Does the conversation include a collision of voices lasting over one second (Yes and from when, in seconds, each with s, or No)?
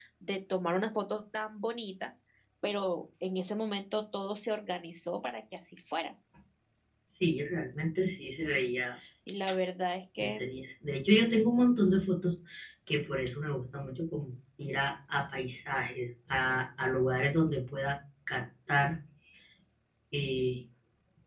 No